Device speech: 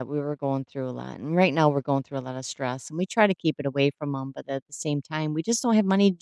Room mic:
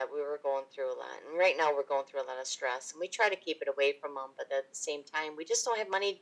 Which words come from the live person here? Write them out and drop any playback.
none

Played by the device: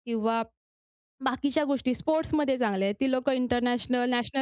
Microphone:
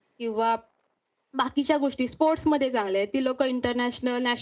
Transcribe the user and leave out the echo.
none

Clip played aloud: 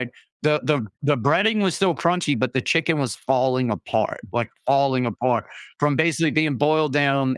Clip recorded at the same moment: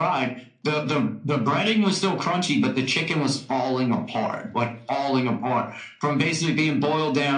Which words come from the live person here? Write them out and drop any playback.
none

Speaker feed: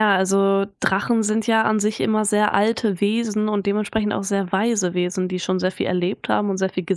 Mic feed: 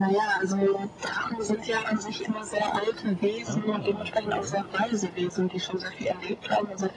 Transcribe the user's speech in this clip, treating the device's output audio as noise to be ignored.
ah, okay.

